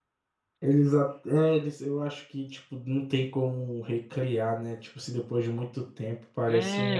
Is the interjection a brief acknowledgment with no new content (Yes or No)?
No